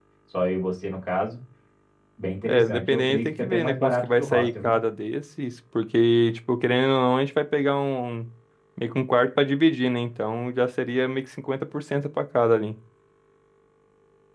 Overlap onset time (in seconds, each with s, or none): 2.5 s